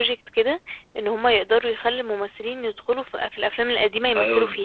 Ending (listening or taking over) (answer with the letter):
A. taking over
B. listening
A